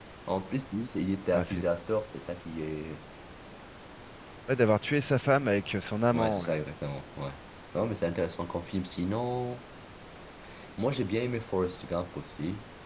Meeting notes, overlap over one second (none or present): none